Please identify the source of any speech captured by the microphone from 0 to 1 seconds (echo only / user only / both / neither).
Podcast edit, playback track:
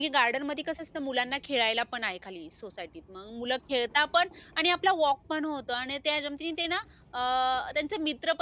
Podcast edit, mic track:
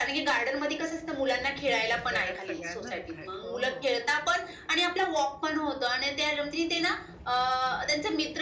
echo only